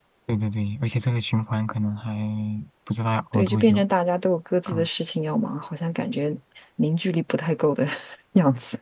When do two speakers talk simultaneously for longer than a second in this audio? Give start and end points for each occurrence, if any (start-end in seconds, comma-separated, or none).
none